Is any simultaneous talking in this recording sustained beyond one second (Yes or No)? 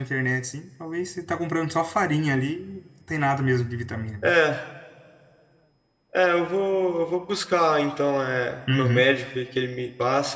No